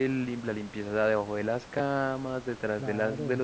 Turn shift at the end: No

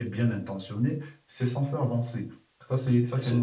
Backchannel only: No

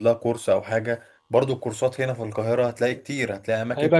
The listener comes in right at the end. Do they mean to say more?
No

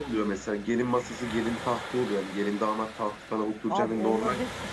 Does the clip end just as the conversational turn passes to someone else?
Yes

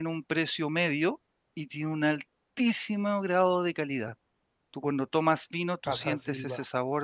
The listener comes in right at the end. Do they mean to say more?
No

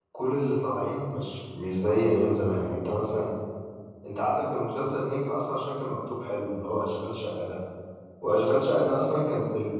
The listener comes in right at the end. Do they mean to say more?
No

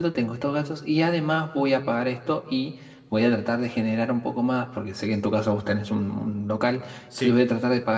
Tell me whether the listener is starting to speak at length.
No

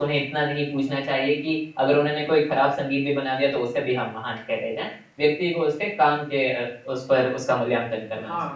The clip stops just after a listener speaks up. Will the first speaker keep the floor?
No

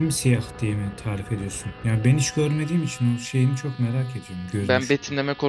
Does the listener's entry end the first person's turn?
Yes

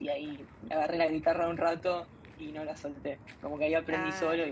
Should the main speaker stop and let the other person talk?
No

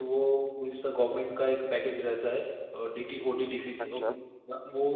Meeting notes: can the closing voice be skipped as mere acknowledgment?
Yes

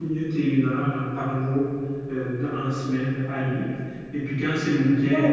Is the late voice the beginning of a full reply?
No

